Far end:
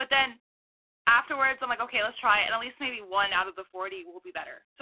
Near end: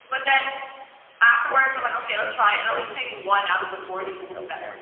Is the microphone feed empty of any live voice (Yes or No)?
No